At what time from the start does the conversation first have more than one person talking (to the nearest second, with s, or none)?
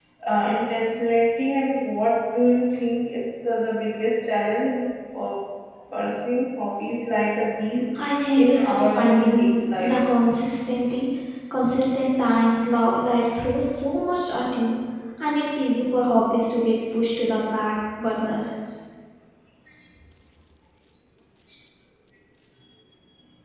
8 s